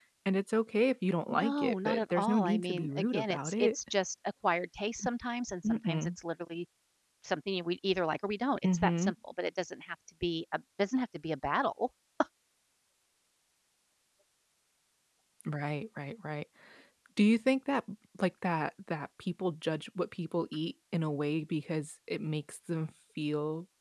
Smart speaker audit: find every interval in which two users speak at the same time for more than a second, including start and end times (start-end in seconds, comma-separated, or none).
1.3-3.7